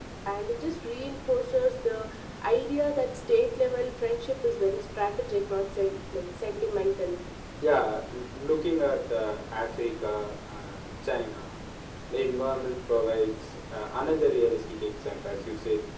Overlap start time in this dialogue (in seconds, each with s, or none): none